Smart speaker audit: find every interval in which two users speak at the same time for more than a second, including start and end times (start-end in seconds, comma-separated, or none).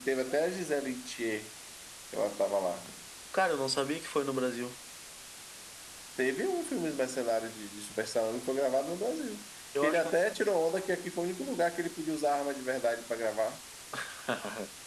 none